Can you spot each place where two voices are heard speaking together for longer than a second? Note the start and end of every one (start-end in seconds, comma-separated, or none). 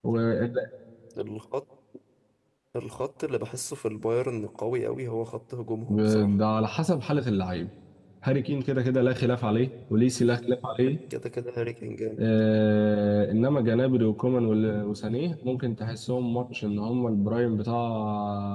none